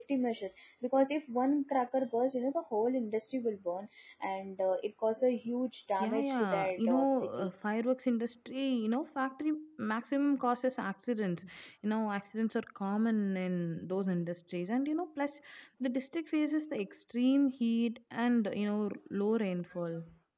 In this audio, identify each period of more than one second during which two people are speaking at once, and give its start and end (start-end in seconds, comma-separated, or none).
6.0-7.5